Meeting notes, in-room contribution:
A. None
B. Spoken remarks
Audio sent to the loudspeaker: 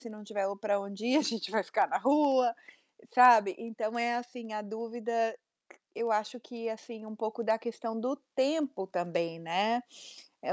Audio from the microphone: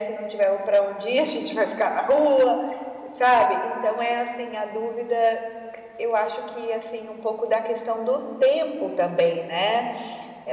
A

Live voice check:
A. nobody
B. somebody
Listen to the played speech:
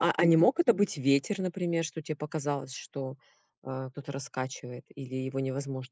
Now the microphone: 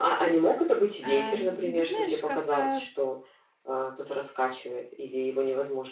B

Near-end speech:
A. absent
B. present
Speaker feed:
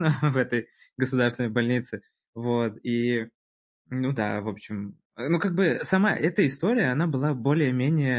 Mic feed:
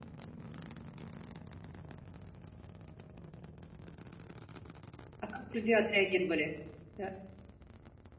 B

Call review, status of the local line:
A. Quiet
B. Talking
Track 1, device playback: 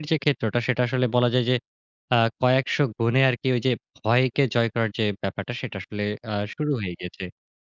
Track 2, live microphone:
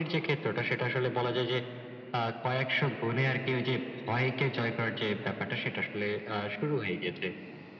B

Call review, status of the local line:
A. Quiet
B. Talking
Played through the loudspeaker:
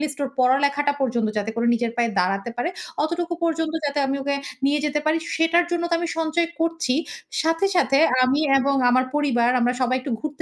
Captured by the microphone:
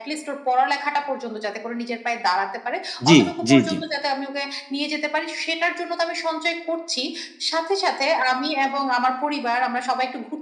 B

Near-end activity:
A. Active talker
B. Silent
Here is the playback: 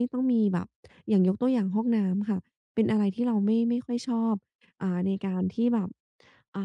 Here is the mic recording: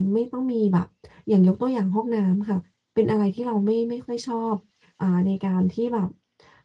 B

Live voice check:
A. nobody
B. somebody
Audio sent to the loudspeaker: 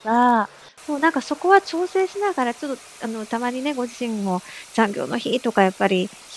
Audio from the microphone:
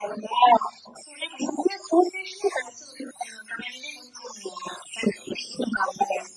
A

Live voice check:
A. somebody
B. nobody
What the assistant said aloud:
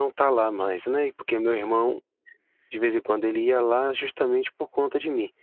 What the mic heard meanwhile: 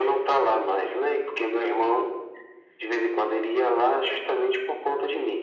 B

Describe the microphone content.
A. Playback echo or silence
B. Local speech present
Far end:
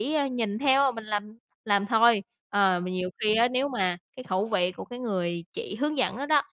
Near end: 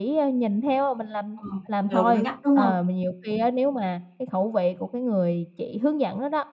B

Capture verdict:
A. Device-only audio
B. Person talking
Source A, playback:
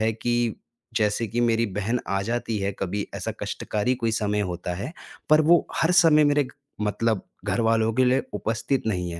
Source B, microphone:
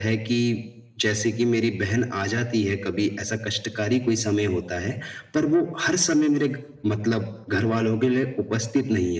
A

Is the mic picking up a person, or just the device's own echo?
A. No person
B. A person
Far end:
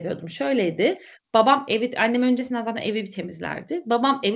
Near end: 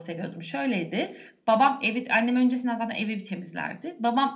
A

